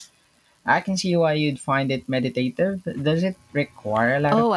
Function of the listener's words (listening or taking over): taking over